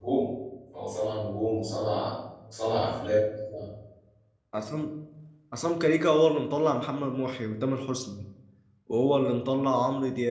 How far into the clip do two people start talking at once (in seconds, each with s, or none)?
none